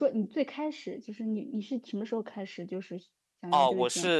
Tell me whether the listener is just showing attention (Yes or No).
No